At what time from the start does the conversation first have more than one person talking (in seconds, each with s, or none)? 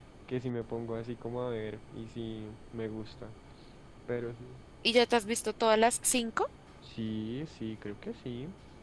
none